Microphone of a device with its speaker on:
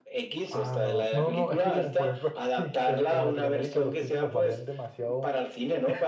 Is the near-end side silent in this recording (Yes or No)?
No